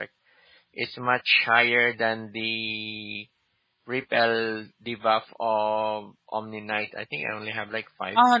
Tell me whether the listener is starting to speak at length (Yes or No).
Yes